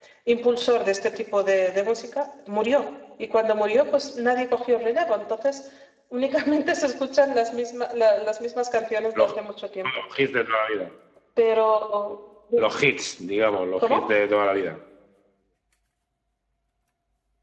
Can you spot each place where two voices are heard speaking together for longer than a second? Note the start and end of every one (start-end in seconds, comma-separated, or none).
none